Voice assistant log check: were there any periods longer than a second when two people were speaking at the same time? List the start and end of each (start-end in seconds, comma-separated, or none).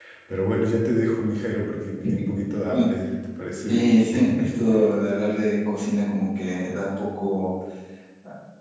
none